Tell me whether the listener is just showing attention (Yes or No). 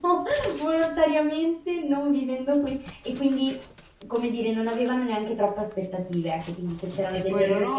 No